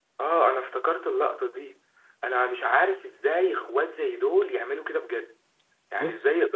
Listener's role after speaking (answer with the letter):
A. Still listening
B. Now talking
A